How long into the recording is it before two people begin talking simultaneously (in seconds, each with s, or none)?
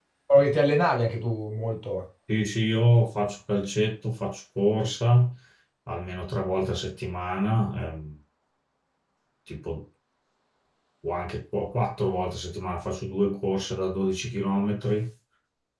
none